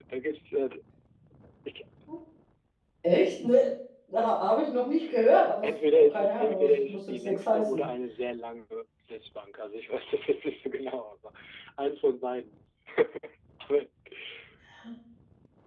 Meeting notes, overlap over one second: present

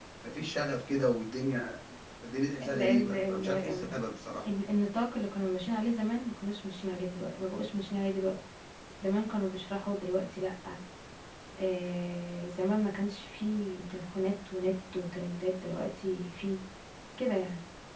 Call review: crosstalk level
present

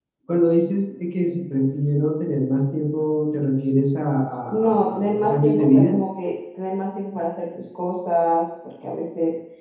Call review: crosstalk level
present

